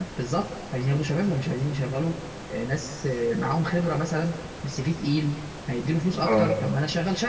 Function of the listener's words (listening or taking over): listening